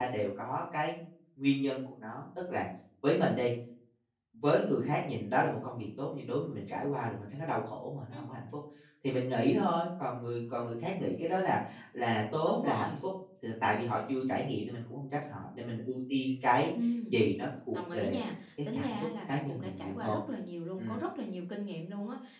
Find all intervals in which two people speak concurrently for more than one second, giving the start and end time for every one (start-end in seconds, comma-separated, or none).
18.7-20.2